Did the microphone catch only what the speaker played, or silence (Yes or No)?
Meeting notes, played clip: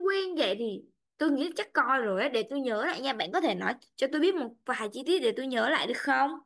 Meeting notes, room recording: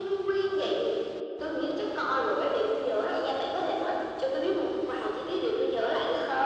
Yes